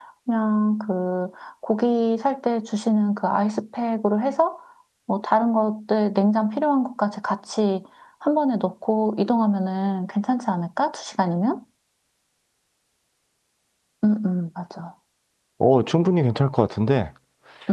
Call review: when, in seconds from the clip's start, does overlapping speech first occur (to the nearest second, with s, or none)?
none